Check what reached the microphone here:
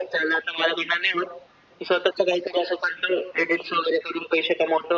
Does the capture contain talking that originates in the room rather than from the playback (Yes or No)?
No